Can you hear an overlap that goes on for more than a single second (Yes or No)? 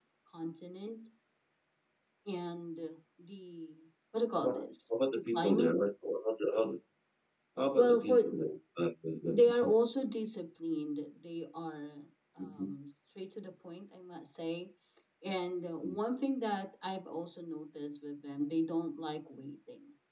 Yes